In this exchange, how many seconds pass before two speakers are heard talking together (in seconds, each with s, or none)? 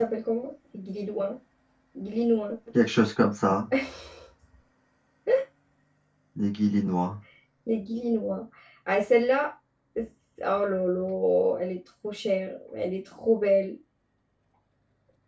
none